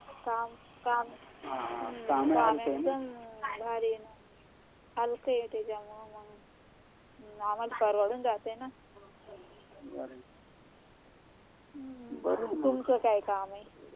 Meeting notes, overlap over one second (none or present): present